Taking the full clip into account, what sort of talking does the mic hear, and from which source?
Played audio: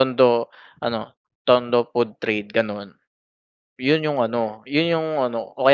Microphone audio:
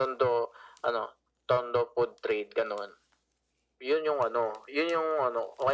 echo only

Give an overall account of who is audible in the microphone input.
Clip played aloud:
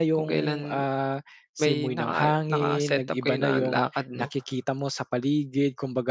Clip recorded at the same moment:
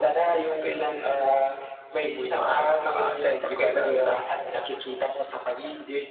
echo only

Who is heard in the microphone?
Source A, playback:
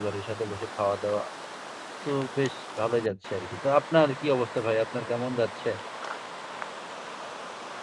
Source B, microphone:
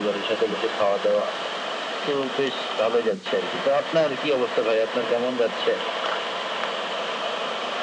echo only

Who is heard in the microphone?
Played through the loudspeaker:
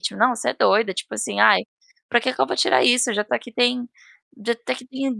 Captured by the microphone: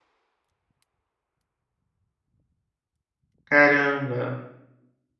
user only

